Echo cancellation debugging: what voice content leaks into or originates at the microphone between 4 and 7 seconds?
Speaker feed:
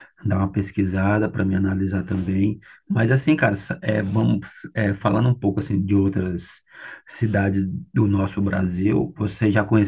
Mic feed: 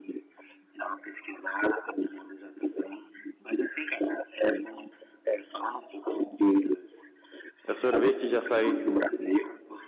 echo only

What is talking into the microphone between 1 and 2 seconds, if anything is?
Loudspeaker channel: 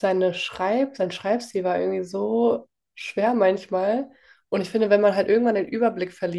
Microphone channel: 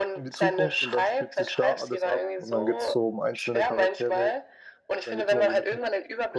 both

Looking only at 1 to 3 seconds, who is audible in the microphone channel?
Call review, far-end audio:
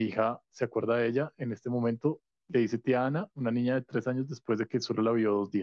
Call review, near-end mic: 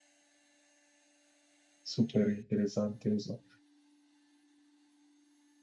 user only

